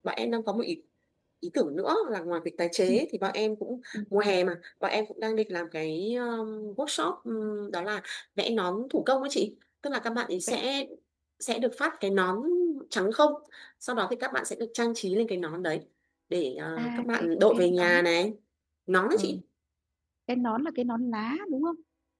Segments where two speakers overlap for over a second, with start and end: 16.8-18.0

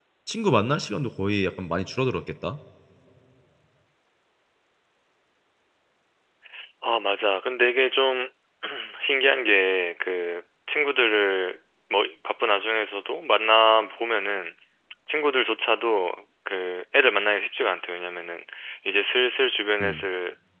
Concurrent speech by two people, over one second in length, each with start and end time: none

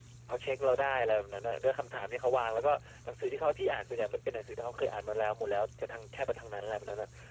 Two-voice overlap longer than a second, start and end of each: none

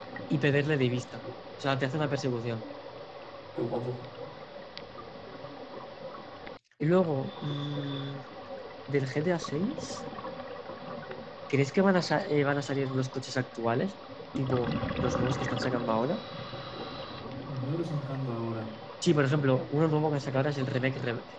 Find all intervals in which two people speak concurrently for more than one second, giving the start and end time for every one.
none

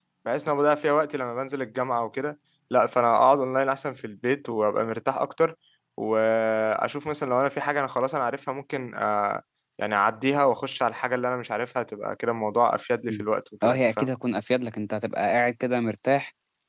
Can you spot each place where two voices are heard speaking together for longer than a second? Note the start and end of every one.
none

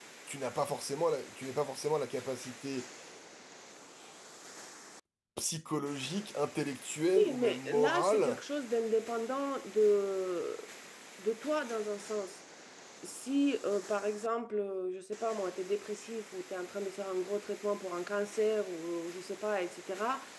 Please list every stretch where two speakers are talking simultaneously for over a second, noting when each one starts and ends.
7.2-8.4

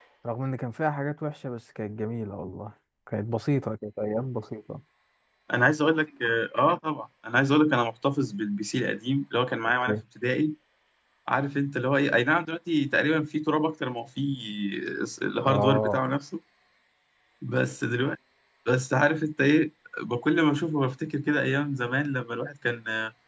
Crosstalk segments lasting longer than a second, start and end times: none

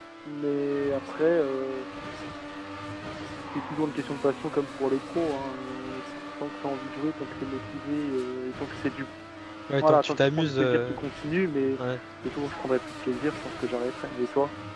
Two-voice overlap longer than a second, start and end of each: 9.8-11.0

